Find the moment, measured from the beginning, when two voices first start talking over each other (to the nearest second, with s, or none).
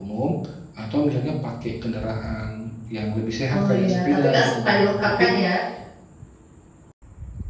3 s